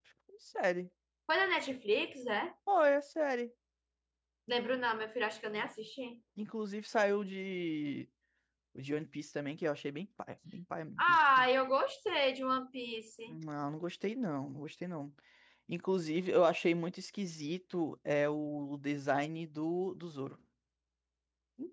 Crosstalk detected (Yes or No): No